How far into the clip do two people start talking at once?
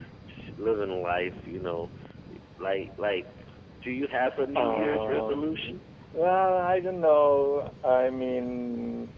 5 s

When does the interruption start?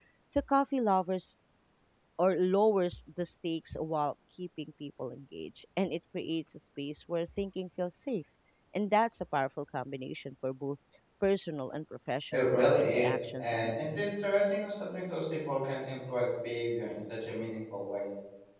12 s

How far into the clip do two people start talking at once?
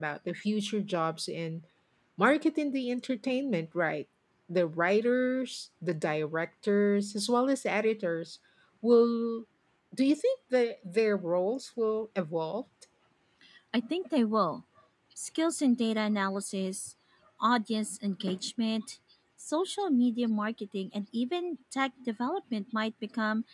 none

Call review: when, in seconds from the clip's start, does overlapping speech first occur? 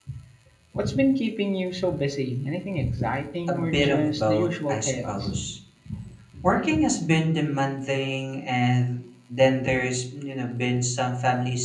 3 s

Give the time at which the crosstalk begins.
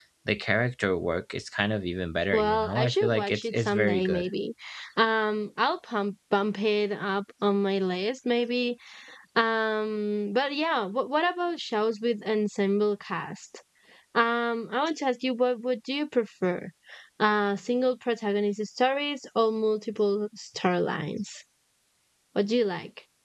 2 s

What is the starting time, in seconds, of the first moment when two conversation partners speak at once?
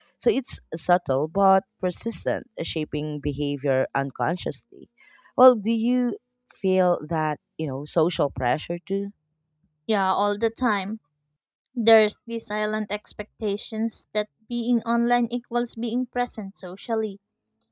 none

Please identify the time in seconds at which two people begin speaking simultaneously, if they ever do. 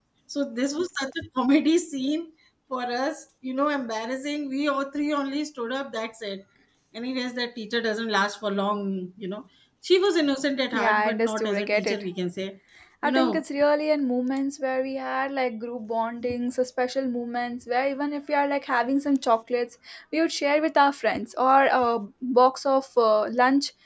11 s

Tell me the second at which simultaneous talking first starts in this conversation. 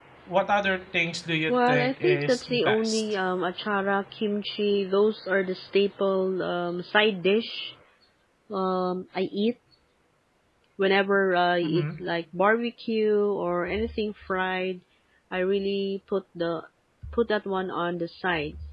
1 s

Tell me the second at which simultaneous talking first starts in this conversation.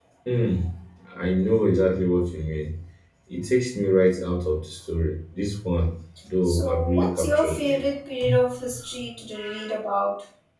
6 s

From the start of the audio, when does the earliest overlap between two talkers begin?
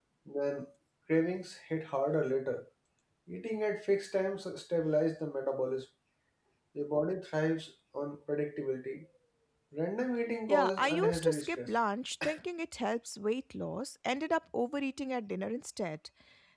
10 s

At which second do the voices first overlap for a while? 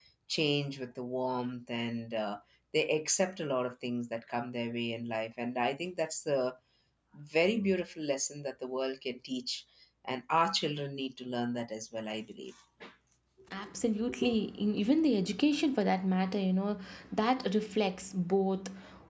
none

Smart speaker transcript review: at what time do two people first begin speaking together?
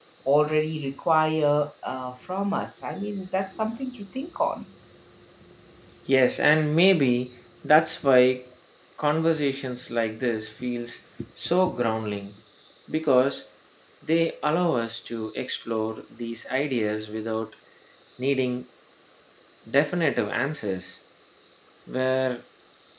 none

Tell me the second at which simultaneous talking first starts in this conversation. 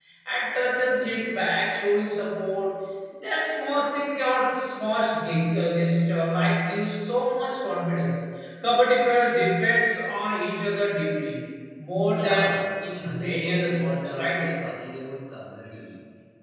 12 s

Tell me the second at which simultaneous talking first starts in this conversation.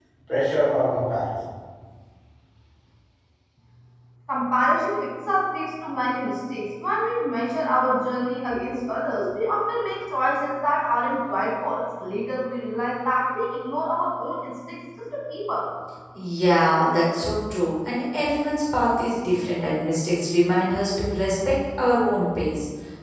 none

